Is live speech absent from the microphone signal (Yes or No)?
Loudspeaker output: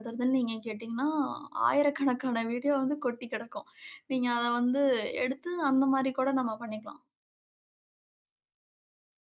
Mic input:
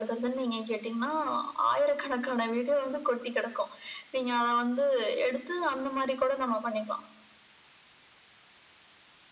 Yes